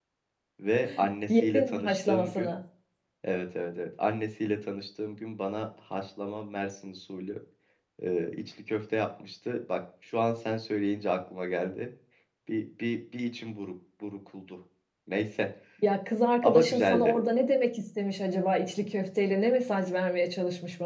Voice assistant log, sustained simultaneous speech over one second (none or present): present